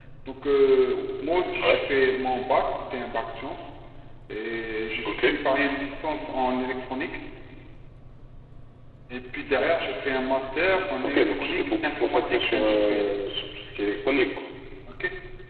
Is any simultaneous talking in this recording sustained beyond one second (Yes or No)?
Yes